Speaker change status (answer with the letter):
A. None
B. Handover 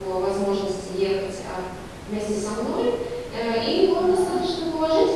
A